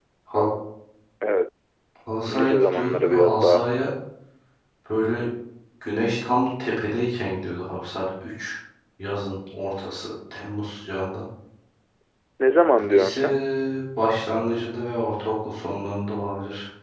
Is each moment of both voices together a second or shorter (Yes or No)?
No